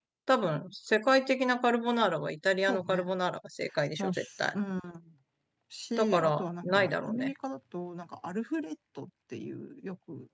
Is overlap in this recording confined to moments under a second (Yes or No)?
No